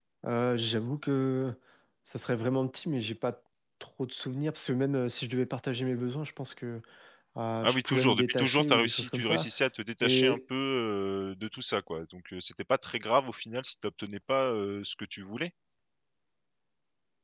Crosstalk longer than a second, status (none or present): present